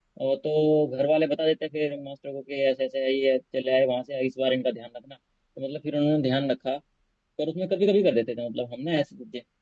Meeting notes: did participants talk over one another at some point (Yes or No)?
No